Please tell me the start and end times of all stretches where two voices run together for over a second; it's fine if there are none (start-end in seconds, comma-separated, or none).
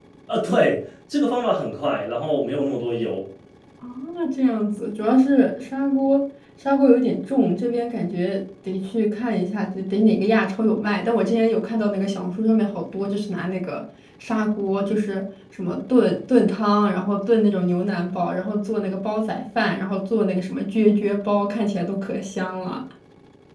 none